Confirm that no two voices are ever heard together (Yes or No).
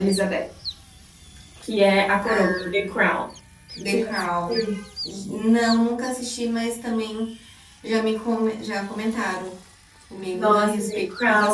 No